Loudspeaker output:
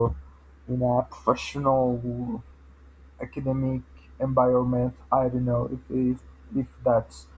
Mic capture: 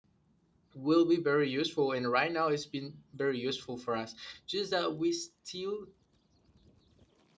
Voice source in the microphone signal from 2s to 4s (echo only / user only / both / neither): user only